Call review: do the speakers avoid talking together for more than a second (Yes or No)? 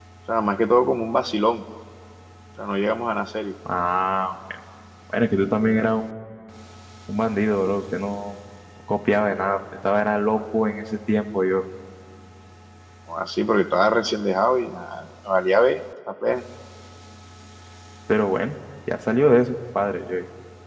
Yes